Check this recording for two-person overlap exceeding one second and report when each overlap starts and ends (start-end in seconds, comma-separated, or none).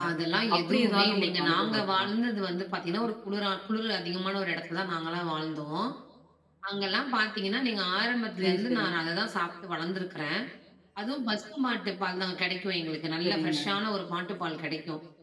0.6-2.1